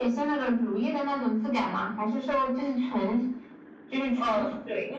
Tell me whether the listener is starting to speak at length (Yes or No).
Yes